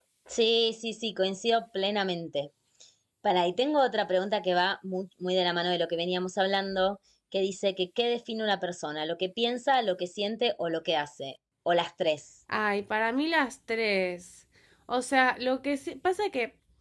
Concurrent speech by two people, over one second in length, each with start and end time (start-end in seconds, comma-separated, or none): none